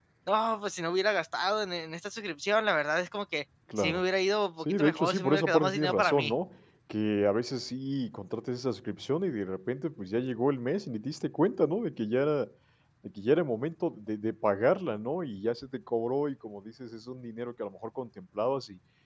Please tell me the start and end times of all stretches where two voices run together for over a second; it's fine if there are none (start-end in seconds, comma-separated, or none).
4.6-6.3